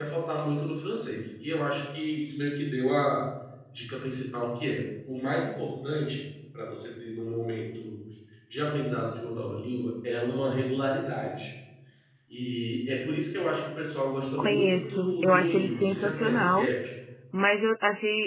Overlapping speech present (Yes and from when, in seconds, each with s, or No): Yes, from 14.4 s